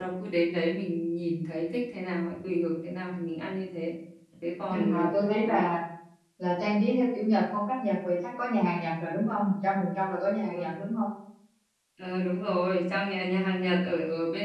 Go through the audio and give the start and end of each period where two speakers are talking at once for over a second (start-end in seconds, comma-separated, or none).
none